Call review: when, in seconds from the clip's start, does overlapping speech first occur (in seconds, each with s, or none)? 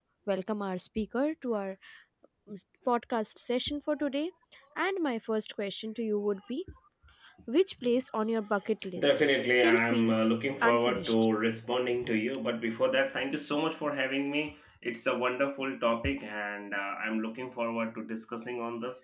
8.9 s